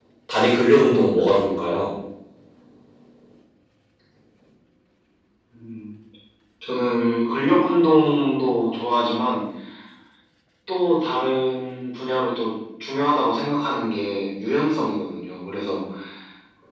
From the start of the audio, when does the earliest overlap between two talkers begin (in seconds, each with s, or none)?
none